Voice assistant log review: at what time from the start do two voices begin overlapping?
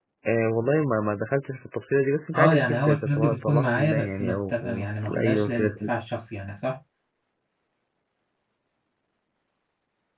2.3 s

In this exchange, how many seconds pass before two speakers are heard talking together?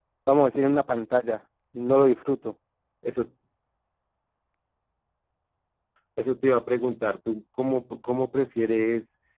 none

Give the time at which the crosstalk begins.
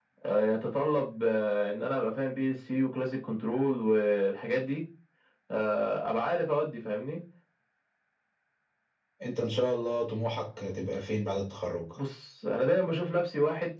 none

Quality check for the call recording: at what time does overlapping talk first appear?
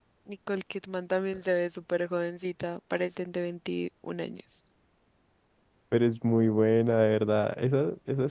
none

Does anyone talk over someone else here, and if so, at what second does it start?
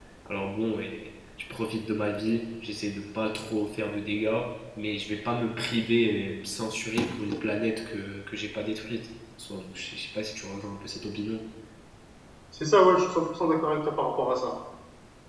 none

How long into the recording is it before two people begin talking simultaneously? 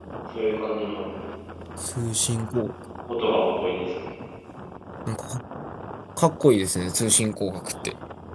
none

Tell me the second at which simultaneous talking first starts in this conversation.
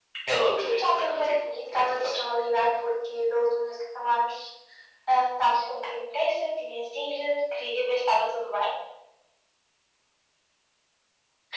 0.6 s

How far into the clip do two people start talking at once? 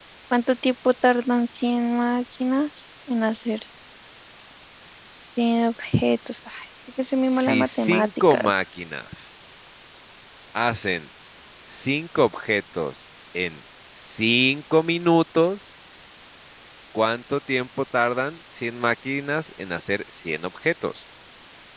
7.2 s

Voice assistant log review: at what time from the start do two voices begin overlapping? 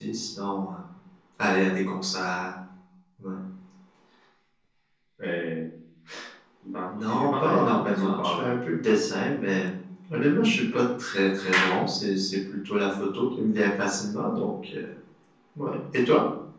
6.9 s

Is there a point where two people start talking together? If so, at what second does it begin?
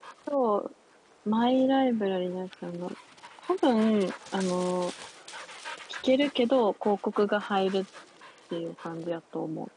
none

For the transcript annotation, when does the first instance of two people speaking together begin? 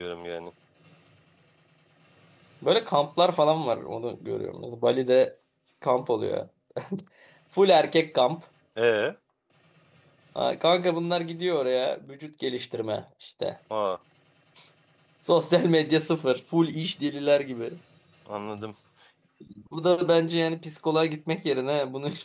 none

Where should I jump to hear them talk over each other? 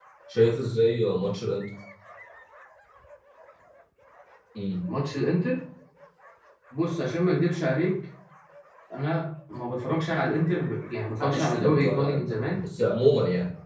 11.2 s

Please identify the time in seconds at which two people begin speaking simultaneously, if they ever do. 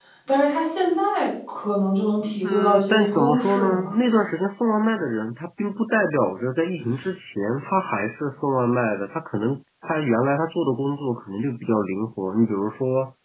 2.4 s

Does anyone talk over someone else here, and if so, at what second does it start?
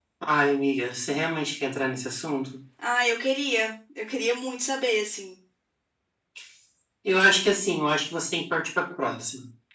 none

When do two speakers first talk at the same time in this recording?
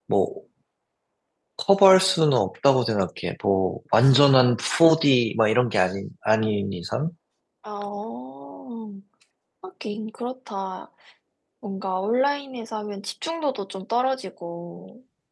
none

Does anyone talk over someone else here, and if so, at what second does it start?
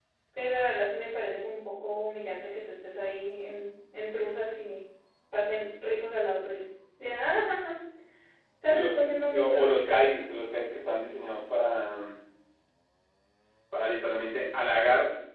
8.7 s

